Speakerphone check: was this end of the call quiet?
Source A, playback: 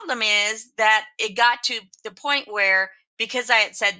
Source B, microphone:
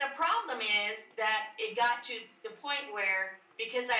Yes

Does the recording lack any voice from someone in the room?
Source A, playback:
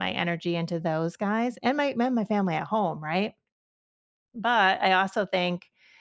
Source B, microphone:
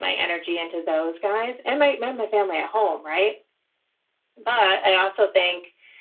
Yes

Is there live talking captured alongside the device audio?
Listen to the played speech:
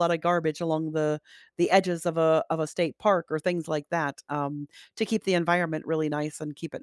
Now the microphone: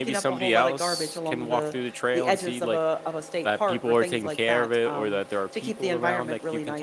Yes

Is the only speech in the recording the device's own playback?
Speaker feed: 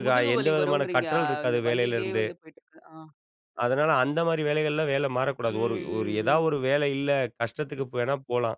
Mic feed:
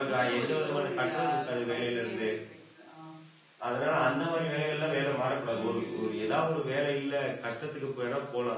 Yes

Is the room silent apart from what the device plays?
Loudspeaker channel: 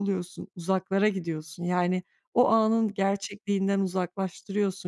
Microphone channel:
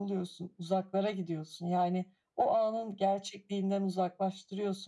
Yes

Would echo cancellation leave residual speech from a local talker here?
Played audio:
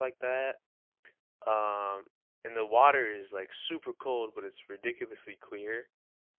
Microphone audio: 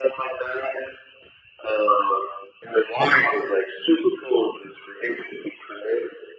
No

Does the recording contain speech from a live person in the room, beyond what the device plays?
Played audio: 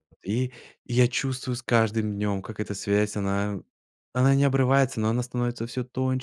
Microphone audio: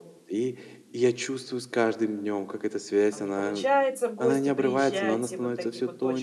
Yes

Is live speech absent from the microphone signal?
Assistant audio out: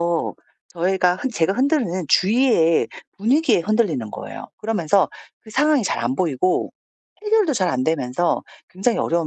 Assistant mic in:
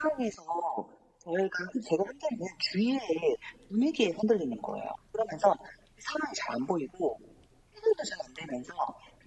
Yes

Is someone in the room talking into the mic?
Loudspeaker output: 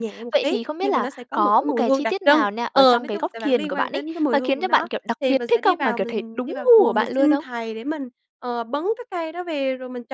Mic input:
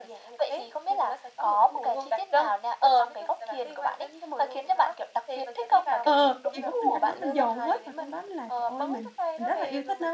Yes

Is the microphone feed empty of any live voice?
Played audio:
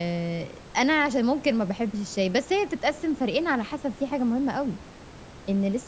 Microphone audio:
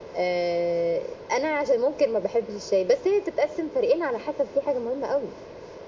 Yes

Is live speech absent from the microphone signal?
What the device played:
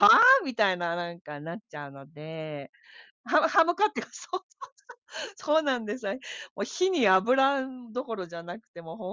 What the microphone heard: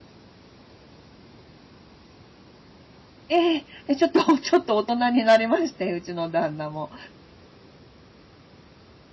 No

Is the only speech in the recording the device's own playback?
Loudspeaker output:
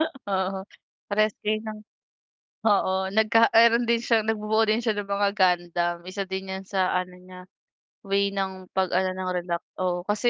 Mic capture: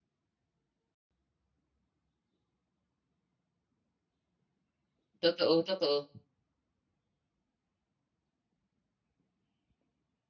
No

